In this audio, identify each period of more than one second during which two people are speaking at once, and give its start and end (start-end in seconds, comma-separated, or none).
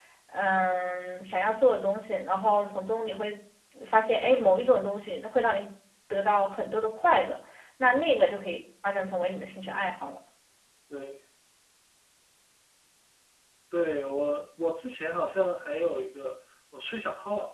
none